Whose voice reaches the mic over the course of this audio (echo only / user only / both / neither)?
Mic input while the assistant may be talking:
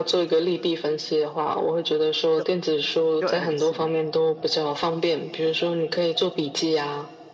both